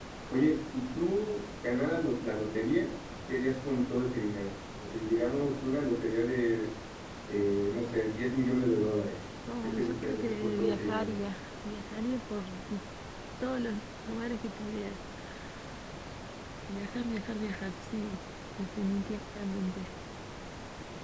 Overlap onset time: 9.5 s

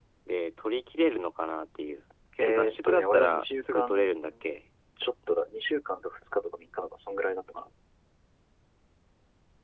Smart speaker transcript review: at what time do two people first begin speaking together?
2.4 s

